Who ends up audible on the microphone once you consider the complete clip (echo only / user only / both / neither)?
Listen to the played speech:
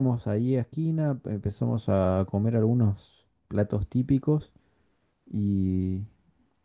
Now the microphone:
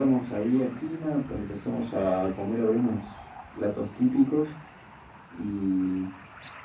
echo only